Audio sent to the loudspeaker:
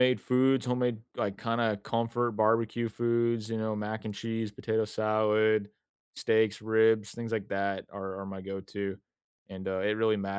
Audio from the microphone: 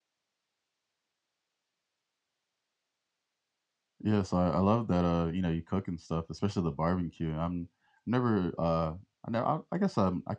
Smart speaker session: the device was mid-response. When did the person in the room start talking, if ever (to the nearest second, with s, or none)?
4 s